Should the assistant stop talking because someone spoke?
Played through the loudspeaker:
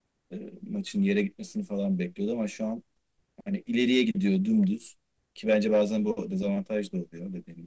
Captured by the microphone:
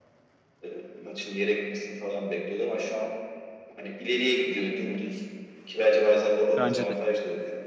Yes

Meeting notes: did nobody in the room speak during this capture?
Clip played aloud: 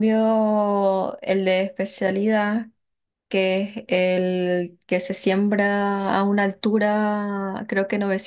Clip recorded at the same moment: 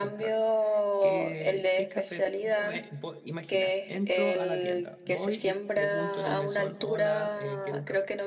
No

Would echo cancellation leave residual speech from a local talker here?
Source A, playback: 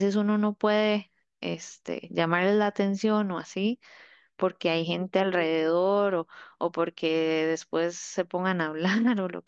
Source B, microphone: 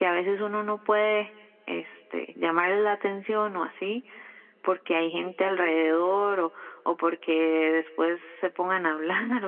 No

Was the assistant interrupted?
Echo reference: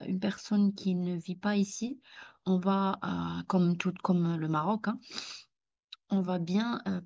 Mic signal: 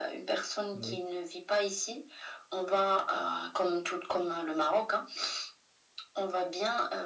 Yes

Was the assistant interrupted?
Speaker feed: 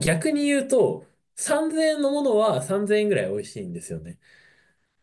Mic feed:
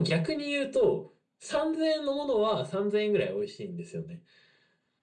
No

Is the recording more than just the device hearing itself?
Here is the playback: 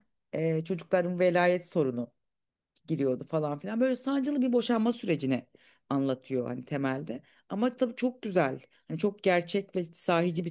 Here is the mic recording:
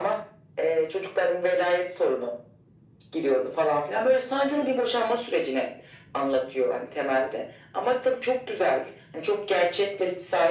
No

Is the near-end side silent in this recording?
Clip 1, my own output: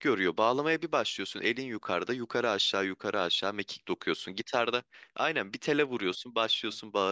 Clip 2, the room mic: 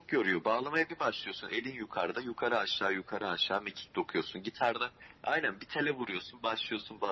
Yes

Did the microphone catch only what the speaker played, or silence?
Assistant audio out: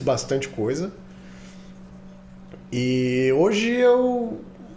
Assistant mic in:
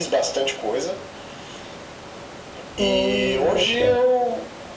No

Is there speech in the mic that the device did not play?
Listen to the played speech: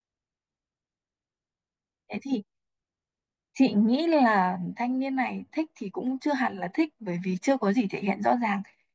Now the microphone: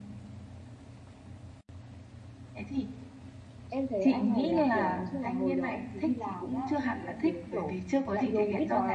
Yes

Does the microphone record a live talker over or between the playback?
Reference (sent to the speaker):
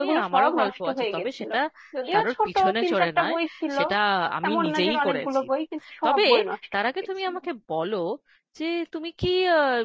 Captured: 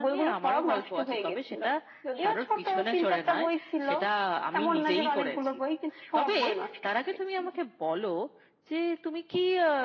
No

